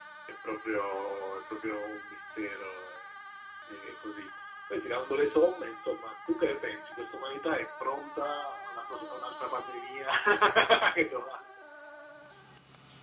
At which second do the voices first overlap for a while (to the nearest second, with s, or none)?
none